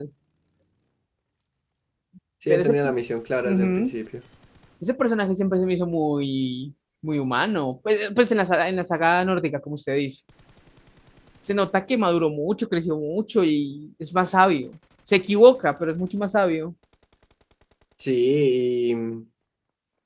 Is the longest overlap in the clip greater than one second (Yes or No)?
No